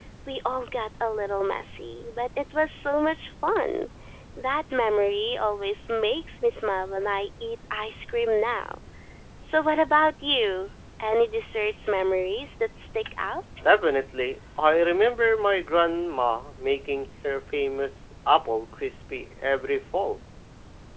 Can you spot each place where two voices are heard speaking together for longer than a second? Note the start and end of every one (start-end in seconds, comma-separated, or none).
none